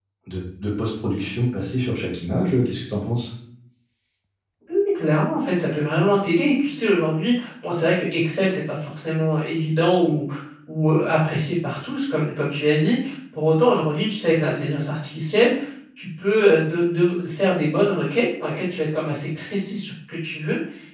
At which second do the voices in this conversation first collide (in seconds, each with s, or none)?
none